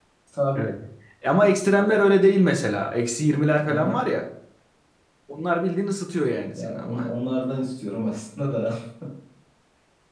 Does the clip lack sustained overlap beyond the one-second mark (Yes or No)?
Yes